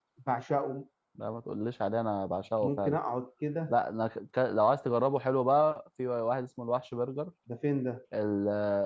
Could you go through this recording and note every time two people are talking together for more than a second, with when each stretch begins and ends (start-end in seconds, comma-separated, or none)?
none